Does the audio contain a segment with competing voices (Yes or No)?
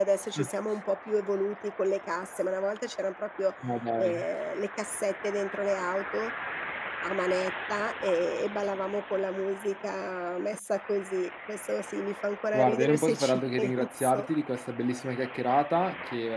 Yes